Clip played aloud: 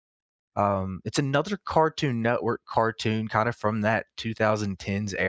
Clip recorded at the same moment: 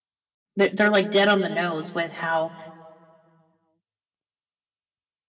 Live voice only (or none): they're, they're like dead on the nose with how